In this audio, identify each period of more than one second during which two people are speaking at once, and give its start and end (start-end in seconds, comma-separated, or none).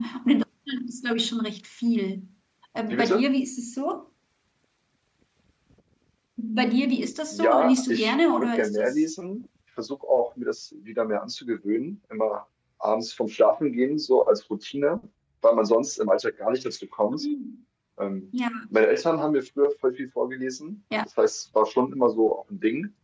7.3-8.9